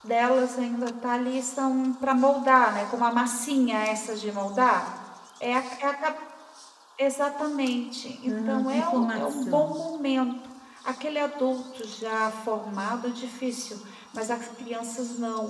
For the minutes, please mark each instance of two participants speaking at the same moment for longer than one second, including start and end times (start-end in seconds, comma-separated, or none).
8.3-9.8